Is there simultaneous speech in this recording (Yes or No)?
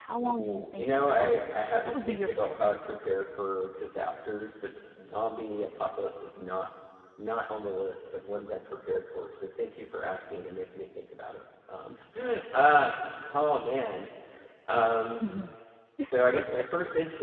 Yes